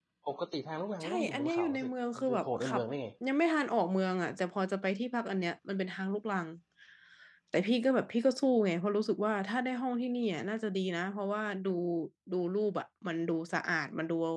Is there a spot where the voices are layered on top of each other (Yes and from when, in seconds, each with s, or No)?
Yes, from 1.0 s